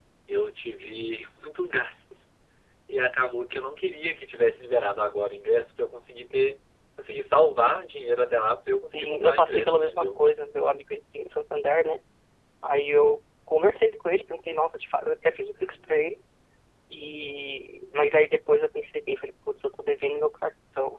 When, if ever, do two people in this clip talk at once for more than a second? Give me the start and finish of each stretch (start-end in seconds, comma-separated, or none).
8.9-10.2